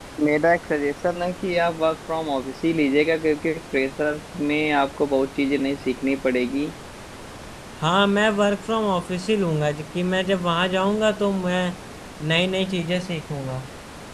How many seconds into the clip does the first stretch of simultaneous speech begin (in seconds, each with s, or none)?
none